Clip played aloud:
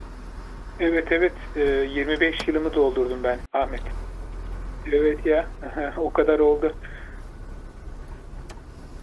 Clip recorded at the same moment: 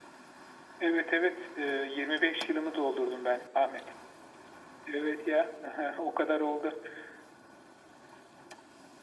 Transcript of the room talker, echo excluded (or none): none